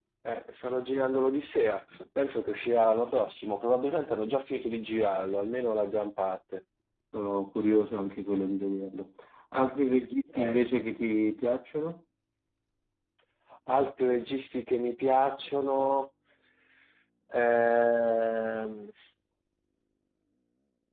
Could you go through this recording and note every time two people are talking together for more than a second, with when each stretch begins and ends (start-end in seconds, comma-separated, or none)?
none